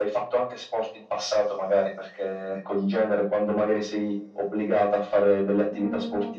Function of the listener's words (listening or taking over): listening